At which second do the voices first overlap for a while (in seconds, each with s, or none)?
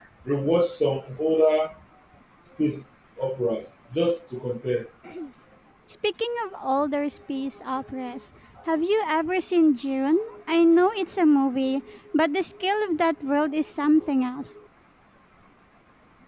none